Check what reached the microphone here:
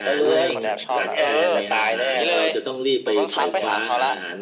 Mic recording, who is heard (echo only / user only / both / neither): both